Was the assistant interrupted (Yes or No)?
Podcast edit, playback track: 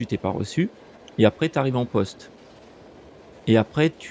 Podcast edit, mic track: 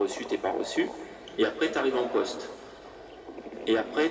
No